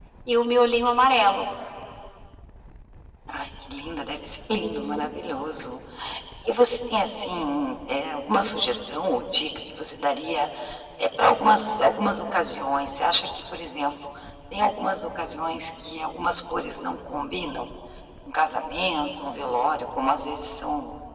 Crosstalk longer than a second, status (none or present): none